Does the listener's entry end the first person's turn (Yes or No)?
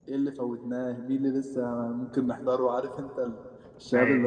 No